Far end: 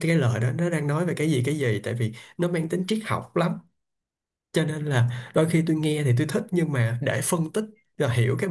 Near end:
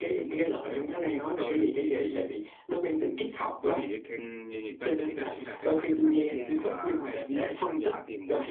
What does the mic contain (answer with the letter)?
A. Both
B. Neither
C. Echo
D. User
A